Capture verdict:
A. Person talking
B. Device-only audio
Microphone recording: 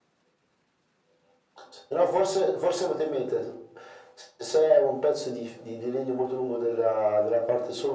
B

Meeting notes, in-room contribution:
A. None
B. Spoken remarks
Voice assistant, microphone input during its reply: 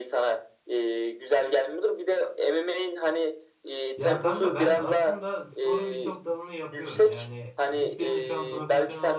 B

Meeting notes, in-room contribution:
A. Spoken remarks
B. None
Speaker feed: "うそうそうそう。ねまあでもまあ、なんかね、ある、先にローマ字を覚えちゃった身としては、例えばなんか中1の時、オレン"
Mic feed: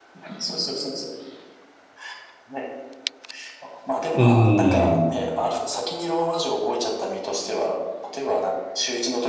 A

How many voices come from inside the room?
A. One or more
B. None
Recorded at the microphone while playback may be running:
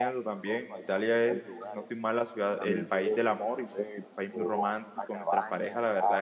A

